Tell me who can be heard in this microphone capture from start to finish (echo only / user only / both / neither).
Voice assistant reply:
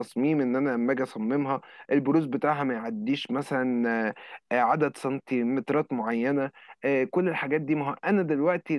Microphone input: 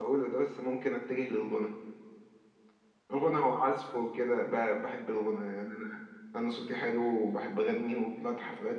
user only